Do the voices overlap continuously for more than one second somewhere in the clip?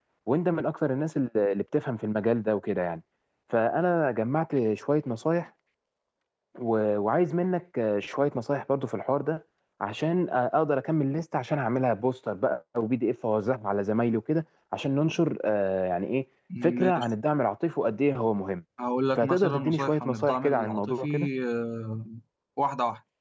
Yes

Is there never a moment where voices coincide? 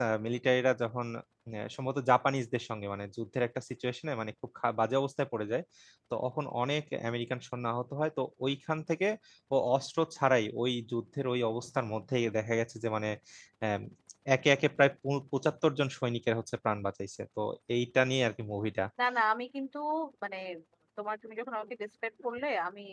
Yes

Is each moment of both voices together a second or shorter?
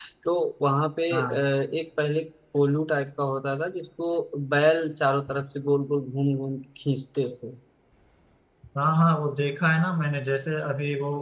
Yes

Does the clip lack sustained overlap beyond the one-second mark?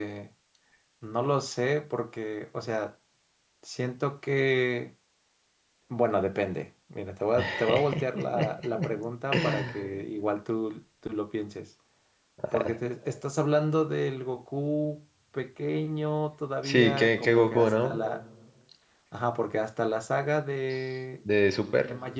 No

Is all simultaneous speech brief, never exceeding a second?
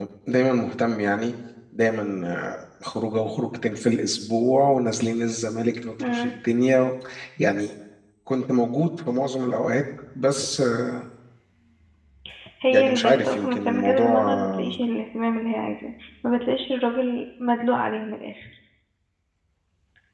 No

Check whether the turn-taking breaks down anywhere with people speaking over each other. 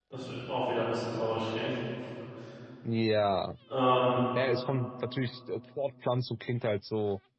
No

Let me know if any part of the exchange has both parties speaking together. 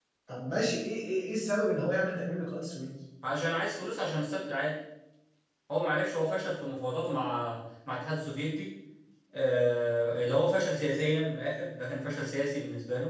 No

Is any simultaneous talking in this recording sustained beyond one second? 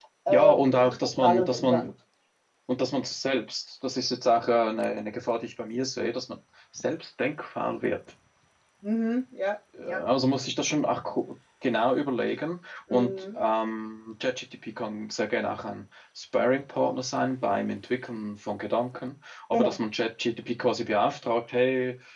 Yes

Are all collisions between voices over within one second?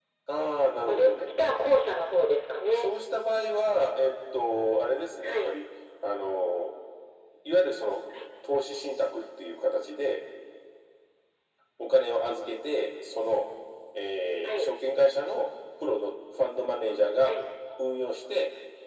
Yes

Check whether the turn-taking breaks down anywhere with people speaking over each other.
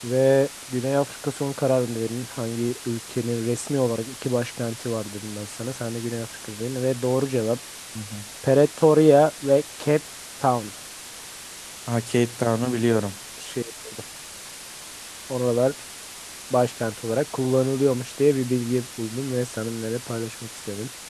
No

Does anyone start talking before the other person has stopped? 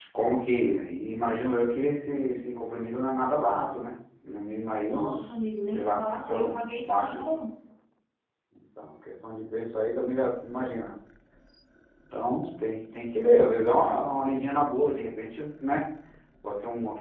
Yes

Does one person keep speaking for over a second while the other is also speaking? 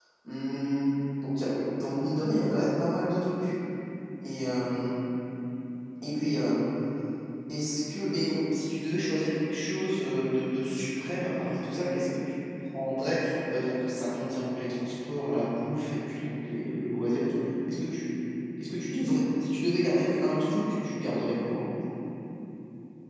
No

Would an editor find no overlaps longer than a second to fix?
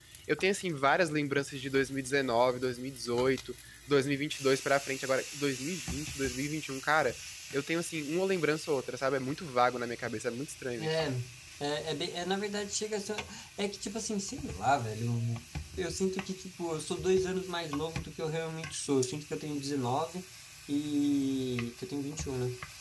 Yes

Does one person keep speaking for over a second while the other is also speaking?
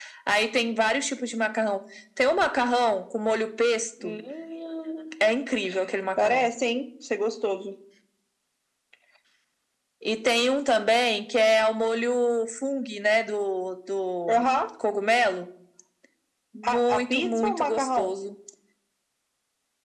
Yes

